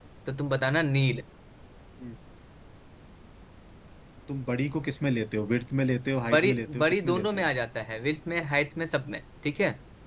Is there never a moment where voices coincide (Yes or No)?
No